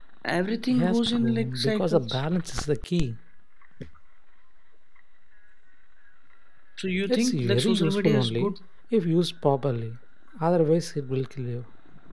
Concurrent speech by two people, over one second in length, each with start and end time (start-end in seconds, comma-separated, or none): 0.7-2.2, 7.1-8.5